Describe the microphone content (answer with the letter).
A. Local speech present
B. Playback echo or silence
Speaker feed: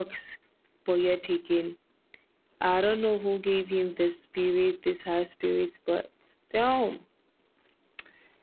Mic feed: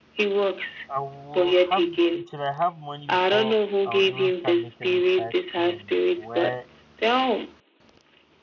A